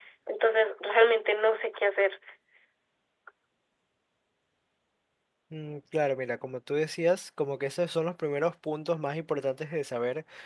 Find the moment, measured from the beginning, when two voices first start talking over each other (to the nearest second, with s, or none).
none